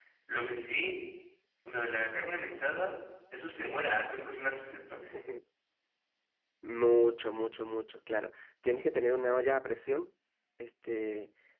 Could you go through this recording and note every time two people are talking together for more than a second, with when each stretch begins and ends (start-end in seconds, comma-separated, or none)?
none